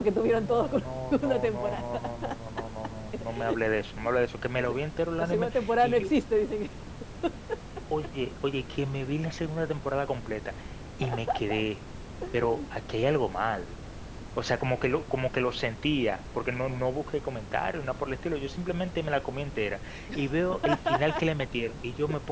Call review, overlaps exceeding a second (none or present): present